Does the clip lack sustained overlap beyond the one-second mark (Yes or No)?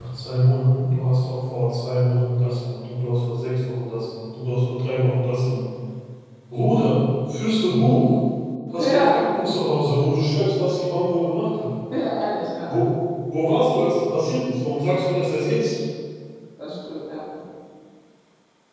Yes